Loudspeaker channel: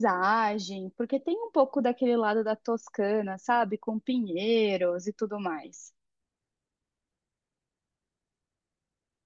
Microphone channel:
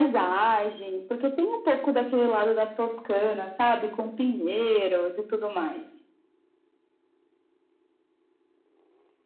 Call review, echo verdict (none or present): present